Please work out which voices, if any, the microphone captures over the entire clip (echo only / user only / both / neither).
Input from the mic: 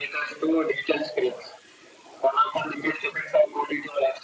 echo only